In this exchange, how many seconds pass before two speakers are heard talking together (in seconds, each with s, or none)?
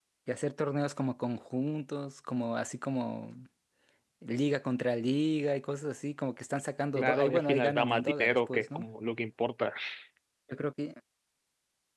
7.0 s